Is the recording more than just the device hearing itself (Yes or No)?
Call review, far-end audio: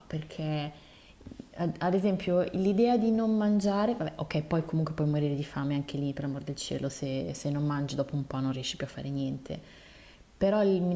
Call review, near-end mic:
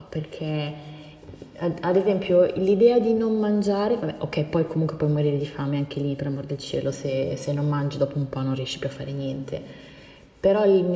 No